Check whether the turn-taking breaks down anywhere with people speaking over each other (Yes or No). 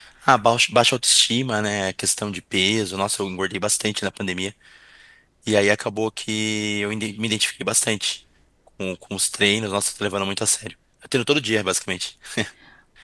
No